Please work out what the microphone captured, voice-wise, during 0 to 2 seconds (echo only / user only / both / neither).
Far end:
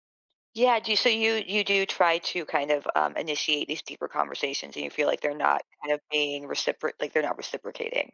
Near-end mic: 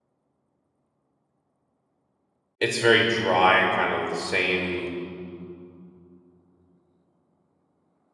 neither